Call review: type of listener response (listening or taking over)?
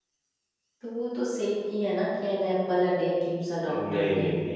taking over